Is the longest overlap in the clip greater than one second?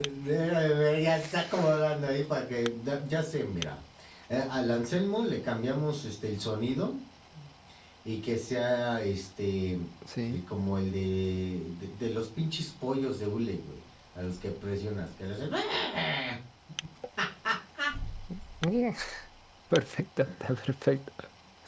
No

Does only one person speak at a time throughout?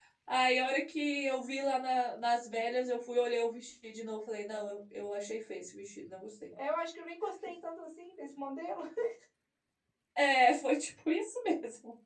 Yes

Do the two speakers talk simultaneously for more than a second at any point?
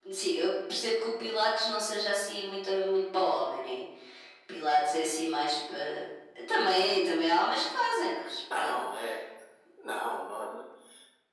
No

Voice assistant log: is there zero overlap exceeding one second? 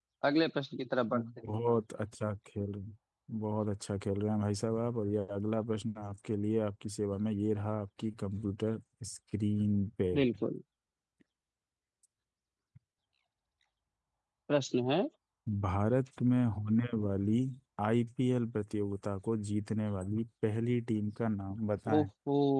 Yes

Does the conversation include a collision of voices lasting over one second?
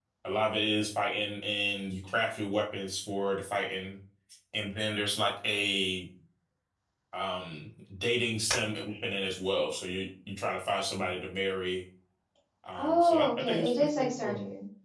Yes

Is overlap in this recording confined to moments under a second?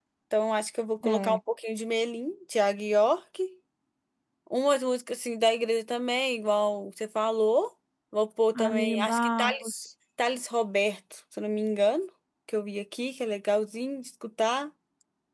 No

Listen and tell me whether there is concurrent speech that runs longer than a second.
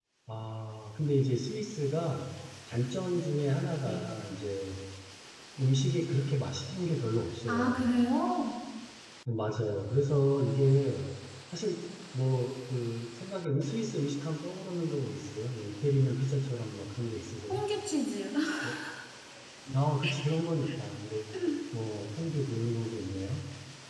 No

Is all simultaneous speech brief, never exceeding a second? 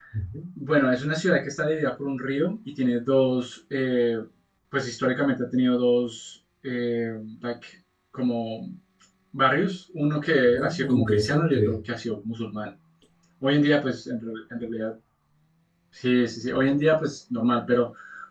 No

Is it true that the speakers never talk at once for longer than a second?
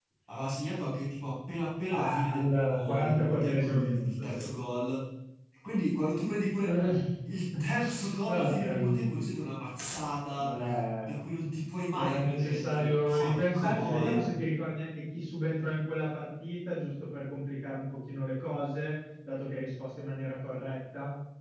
No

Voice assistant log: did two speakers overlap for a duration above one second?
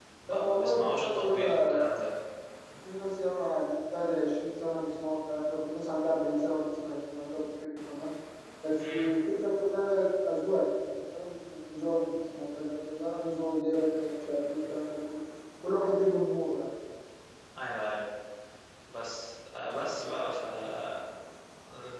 Yes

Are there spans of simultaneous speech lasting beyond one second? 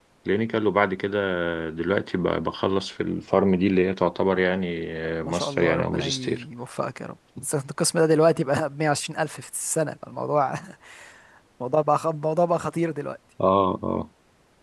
Yes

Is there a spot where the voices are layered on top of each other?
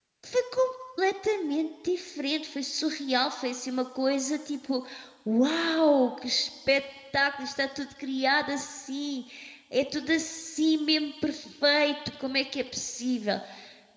No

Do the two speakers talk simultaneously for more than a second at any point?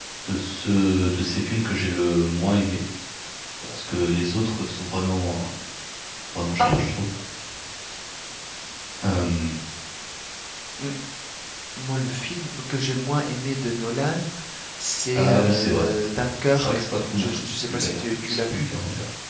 Yes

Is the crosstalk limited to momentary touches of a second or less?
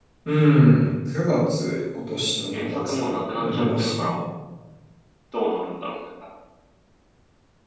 No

